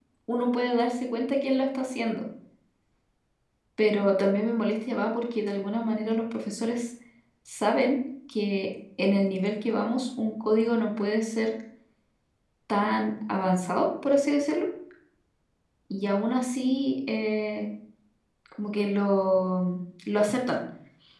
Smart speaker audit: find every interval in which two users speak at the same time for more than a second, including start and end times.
none

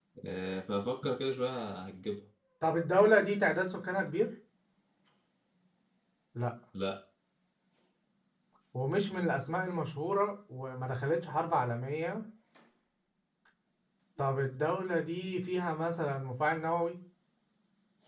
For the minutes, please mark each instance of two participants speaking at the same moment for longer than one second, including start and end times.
none

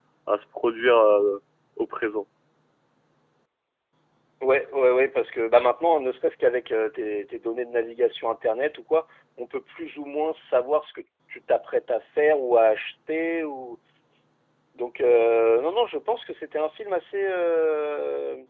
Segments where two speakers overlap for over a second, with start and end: none

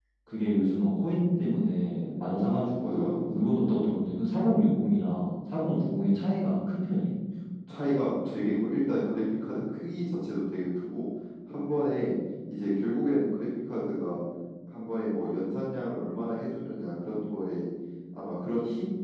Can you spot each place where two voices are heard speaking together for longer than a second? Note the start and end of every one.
2.2-3.4

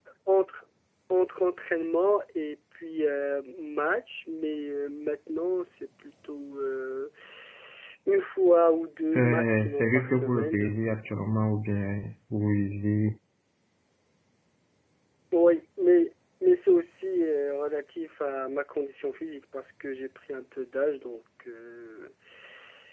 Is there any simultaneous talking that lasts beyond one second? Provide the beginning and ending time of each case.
9.2-10.8

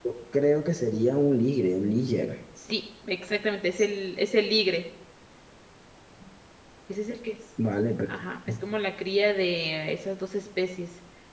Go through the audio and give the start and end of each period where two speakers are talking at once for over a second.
none

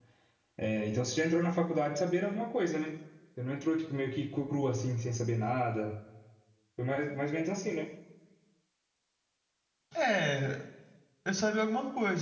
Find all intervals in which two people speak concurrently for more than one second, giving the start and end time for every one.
none

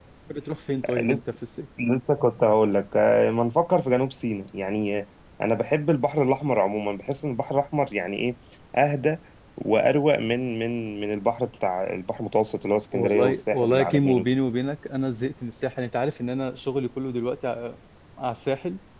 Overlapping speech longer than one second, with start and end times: 12.9-14.2

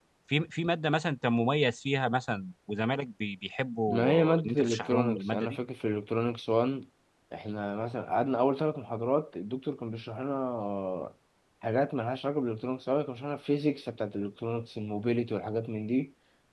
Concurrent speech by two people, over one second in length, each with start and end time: 3.9-5.6

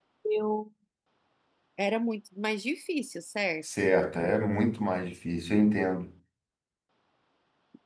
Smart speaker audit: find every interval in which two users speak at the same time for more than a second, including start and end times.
none

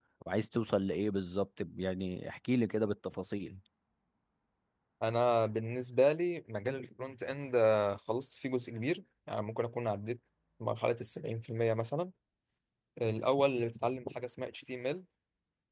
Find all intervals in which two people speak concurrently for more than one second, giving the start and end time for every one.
none

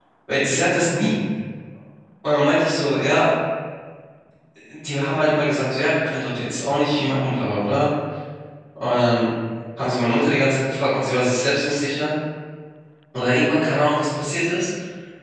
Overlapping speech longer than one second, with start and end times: none

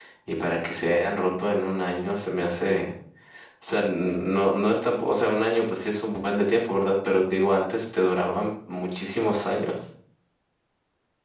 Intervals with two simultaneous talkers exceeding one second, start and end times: none

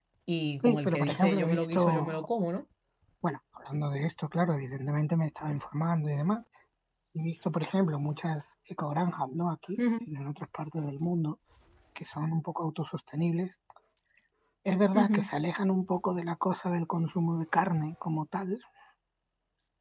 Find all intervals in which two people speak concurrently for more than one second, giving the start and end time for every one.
0.6-2.3

